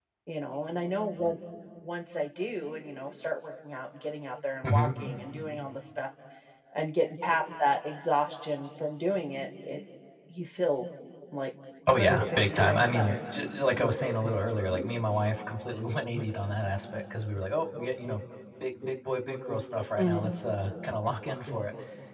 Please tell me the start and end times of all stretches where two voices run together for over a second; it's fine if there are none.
11.9-13.2

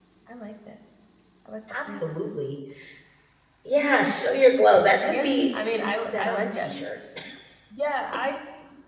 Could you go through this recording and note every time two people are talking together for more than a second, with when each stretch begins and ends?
5.1-6.7

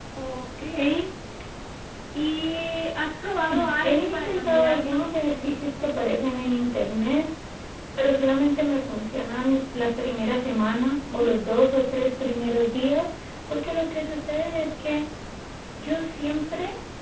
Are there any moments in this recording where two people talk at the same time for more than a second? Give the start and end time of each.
3.8-5.1

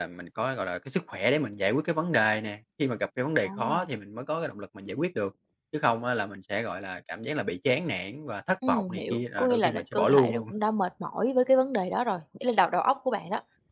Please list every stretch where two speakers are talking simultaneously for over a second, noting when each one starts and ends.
8.7-10.5

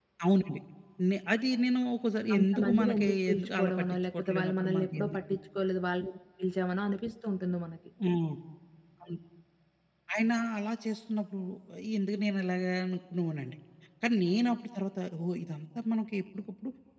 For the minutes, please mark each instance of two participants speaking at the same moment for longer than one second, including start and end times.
2.4-5.2

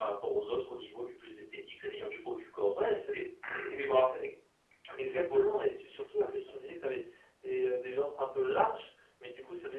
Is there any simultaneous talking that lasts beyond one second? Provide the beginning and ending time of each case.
none

